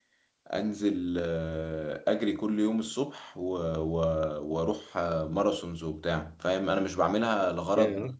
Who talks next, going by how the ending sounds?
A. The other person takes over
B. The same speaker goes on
B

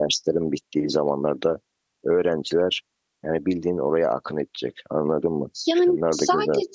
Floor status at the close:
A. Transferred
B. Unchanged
A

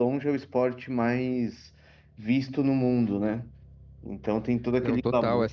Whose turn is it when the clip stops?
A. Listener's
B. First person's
A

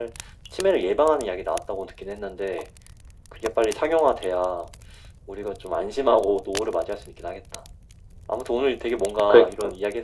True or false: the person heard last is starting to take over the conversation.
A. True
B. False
B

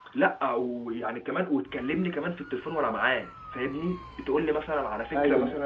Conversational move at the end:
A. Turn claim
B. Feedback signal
B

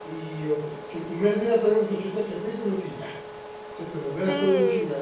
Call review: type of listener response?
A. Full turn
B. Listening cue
A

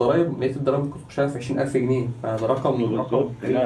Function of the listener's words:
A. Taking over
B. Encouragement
A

